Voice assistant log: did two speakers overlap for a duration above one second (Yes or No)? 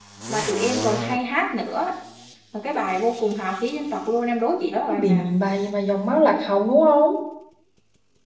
No